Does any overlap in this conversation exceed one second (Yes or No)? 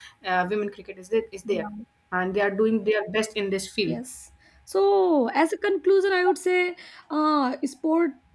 No